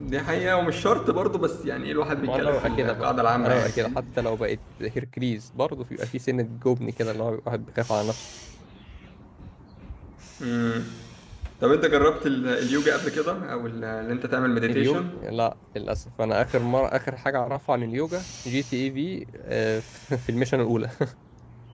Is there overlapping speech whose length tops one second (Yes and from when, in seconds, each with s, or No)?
Yes, from 2.2 s